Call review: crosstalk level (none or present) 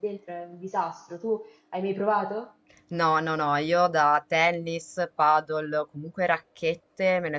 none